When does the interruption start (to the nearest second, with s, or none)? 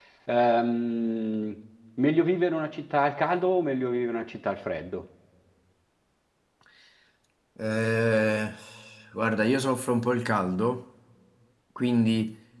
none